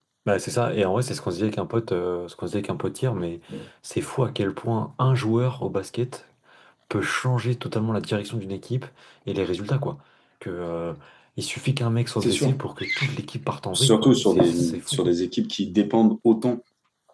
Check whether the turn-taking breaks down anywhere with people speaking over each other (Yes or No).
Yes